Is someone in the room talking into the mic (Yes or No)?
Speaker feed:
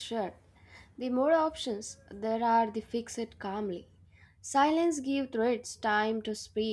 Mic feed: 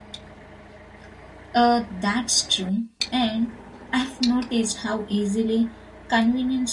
Yes